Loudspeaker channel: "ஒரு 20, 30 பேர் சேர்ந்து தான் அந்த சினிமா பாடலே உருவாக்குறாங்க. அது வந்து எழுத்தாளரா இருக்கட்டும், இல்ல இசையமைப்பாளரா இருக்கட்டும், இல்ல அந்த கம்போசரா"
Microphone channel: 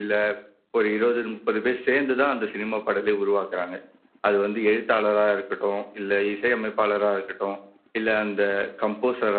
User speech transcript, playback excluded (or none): none